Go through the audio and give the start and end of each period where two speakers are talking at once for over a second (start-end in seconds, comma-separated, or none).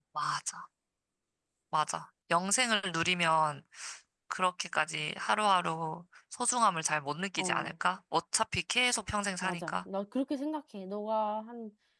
none